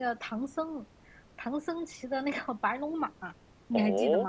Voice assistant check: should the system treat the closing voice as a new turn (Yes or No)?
Yes